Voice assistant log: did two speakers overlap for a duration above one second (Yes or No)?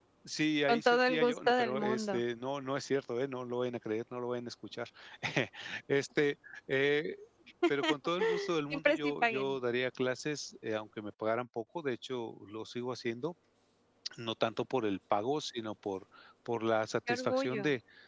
Yes